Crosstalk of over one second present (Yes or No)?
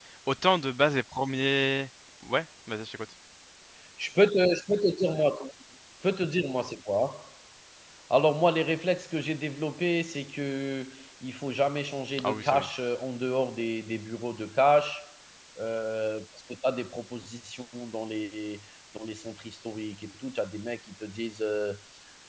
No